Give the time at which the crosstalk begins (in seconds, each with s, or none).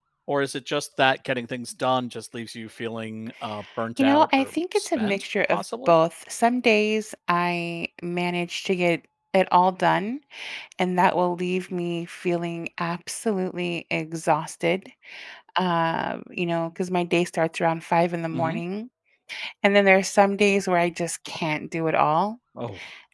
4.0 s